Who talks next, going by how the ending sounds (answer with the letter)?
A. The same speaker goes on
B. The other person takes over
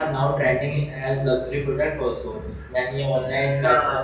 A